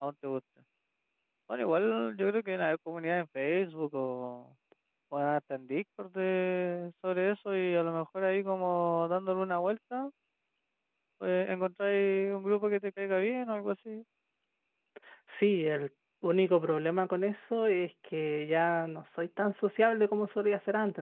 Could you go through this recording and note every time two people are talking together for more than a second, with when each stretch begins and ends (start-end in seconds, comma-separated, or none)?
none